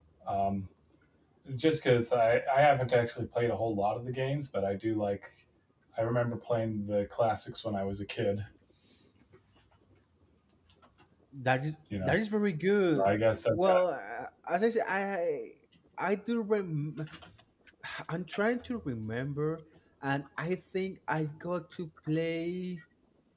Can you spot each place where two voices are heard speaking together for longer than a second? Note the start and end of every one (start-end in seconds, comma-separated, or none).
none